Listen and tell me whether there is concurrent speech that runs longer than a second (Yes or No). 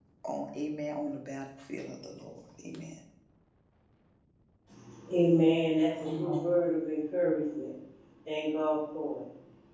No